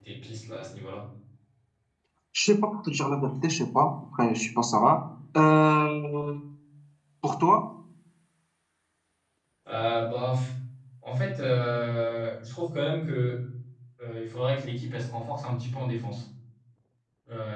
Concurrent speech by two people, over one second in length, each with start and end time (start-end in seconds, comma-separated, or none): none